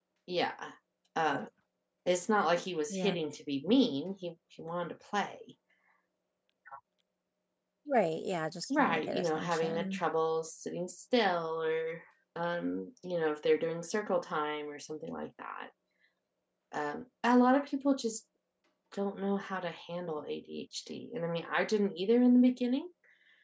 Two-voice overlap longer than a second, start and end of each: 8.8-10.0

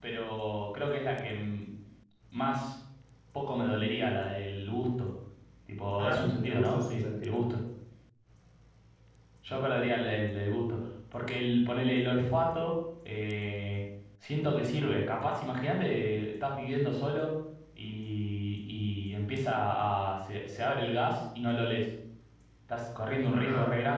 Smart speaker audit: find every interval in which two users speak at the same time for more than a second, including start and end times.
6.0-7.4

